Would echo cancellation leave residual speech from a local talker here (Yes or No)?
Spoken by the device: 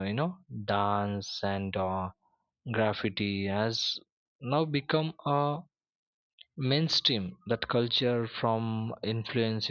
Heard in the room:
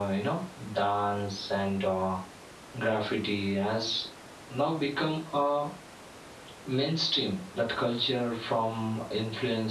No